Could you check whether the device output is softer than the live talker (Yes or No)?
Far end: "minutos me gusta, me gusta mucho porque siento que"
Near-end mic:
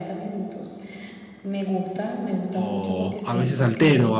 Yes